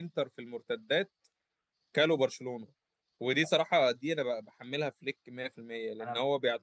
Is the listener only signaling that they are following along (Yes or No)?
Yes